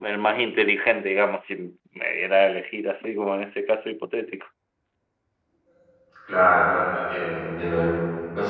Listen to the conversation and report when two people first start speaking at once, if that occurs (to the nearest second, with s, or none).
none